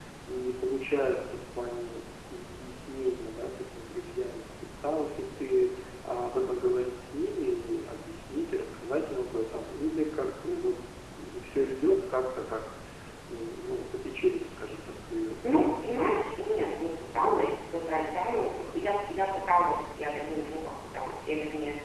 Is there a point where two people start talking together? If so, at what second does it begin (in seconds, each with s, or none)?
none